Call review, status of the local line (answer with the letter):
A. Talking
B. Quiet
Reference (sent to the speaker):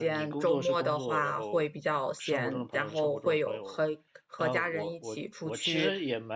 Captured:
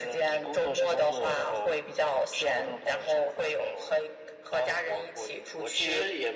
B